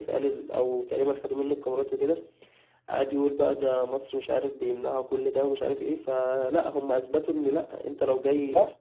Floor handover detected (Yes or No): No